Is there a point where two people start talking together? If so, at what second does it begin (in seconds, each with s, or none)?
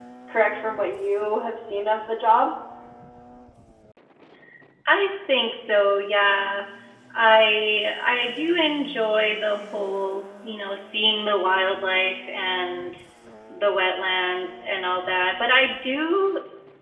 none